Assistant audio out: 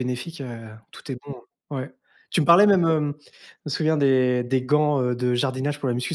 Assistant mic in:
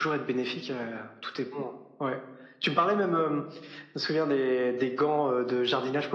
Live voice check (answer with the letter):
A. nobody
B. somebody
A